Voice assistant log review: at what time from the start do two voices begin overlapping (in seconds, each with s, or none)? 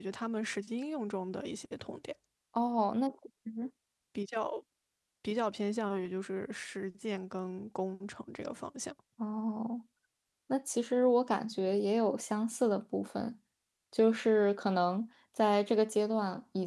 none